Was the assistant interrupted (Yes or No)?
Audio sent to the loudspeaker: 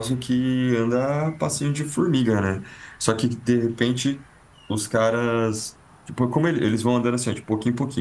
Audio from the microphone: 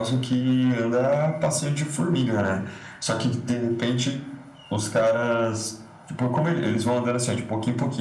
No